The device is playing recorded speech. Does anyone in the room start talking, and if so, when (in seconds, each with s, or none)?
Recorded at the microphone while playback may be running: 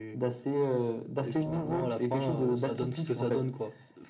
none